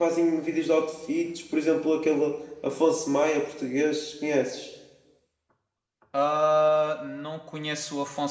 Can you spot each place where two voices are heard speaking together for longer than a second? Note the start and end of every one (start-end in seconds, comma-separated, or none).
none